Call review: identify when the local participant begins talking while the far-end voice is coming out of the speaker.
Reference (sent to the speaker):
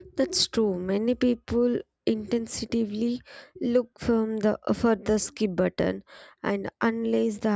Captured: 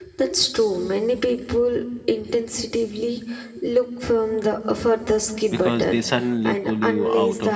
5.5 s

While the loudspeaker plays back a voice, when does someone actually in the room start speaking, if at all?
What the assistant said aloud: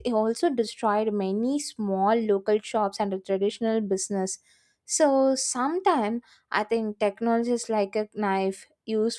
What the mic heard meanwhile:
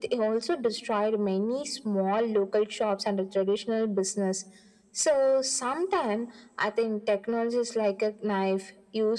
none

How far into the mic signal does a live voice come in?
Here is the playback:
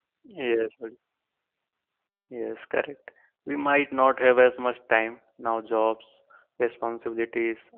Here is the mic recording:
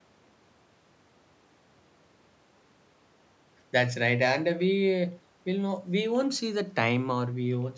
3.7 s

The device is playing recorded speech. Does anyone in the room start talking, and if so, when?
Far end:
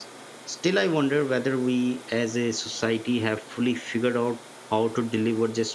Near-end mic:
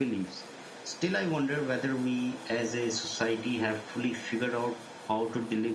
none

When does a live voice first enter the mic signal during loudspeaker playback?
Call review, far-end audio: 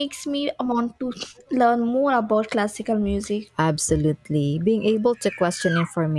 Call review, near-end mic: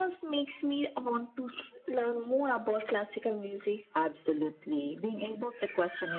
none

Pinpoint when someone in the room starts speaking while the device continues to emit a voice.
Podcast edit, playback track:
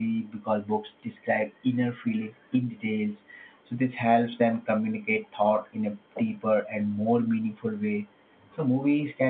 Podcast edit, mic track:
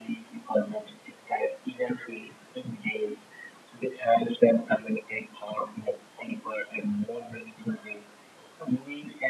none

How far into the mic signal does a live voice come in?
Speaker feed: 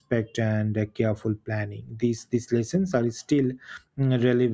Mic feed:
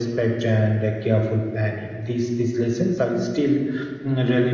none

